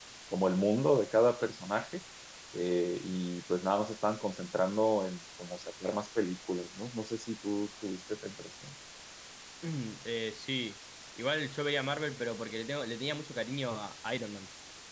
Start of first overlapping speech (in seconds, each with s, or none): none